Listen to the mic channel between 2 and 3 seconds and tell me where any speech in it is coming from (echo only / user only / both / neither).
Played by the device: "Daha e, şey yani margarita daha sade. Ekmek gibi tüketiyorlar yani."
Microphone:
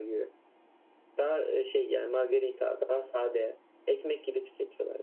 echo only